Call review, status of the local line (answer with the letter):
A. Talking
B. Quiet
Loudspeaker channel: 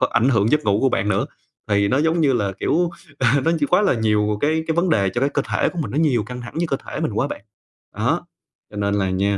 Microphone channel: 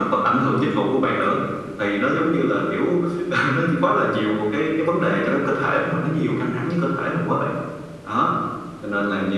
B